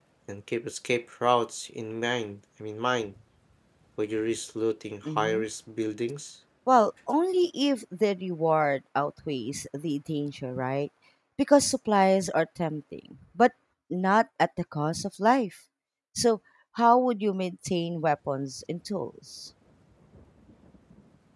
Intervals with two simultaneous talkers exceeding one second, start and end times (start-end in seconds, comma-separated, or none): none